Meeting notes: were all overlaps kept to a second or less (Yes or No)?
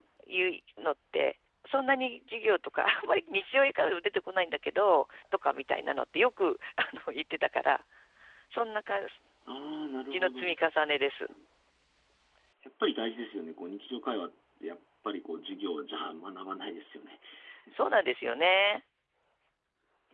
Yes